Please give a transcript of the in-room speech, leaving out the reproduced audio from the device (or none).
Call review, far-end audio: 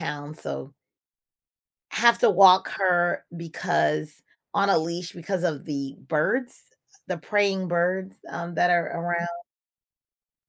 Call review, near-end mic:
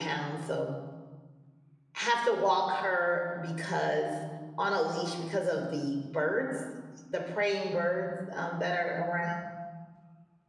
none